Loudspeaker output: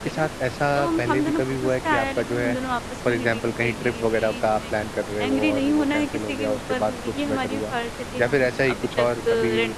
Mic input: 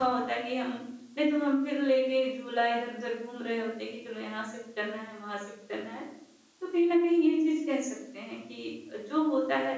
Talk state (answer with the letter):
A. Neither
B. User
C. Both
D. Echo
B